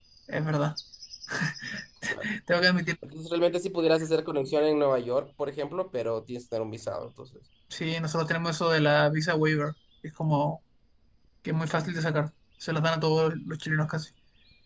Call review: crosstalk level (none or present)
none